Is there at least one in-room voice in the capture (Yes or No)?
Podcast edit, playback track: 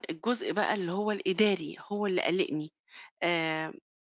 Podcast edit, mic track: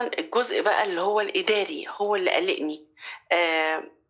No